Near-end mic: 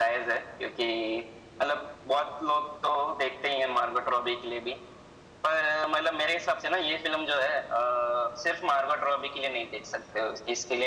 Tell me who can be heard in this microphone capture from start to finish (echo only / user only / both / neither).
echo only